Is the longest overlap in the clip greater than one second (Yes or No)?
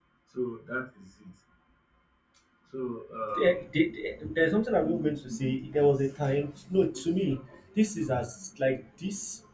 No